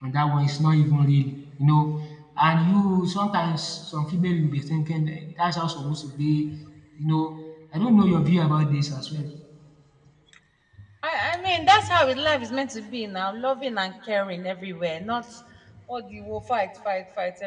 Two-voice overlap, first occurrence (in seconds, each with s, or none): none